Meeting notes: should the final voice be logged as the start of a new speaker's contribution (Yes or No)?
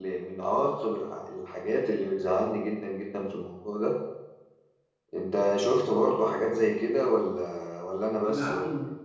Yes